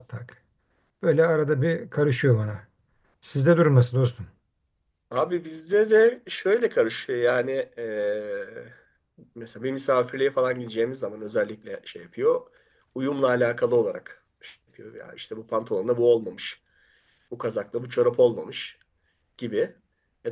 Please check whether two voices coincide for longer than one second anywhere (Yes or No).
No